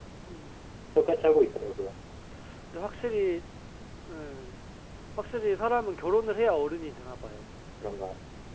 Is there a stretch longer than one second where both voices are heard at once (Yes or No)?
No